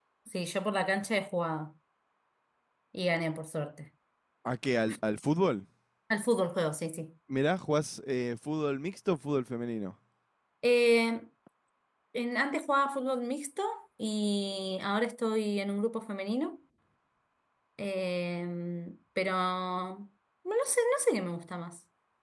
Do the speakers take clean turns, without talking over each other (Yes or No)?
Yes